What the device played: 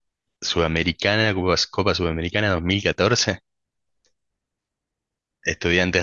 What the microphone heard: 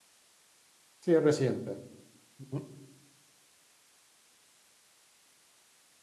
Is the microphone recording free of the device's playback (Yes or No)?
Yes